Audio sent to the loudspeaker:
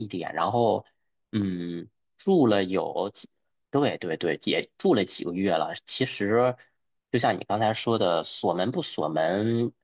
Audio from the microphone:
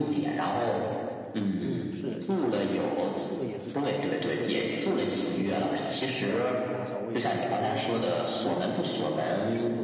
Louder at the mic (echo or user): echo